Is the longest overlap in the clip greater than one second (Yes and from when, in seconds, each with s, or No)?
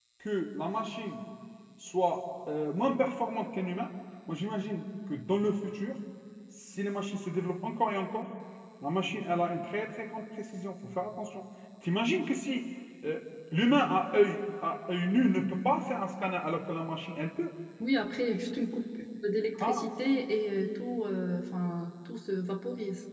No